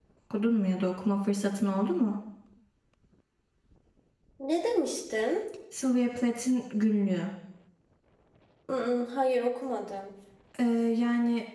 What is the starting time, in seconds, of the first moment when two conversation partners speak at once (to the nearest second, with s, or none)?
none